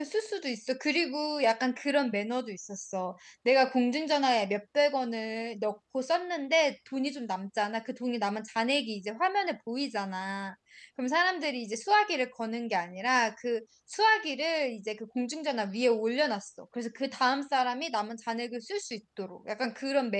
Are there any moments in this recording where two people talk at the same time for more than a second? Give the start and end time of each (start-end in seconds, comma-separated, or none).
none